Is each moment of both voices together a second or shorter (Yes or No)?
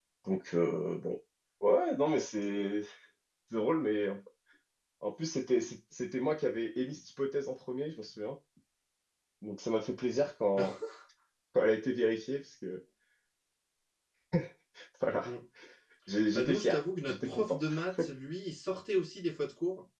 No